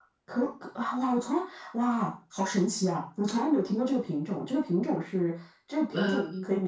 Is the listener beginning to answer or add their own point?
No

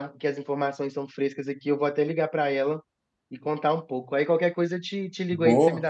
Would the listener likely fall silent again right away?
No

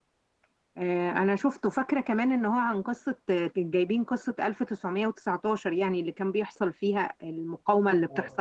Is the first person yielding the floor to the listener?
Yes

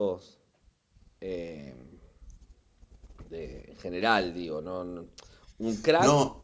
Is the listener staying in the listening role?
Yes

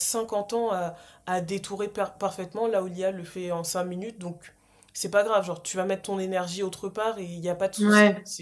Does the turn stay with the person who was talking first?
Yes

